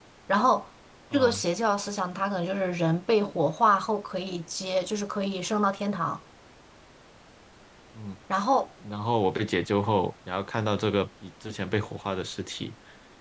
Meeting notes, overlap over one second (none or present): none